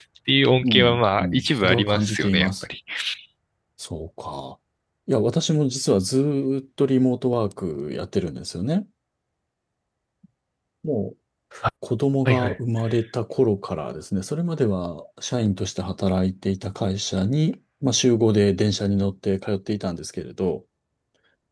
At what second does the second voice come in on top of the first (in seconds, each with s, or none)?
0.6 s